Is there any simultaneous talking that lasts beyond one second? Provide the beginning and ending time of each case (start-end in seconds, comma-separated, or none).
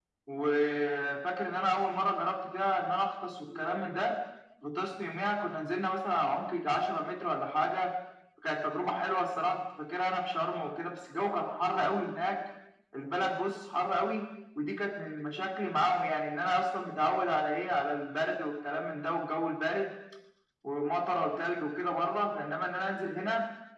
none